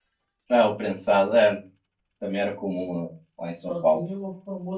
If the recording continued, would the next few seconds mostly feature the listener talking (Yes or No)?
Yes